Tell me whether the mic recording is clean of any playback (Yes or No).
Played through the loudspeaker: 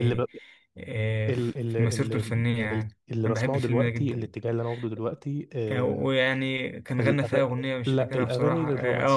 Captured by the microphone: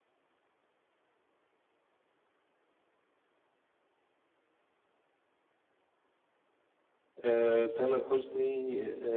Yes